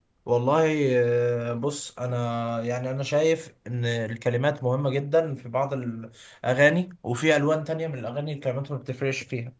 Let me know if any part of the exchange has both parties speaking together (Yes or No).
No